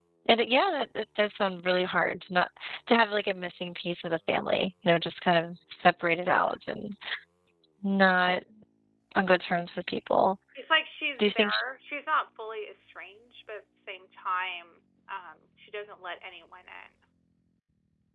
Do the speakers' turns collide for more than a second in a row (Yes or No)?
No